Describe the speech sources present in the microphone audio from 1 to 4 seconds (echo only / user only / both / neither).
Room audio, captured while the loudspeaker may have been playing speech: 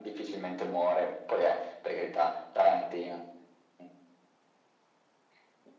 echo only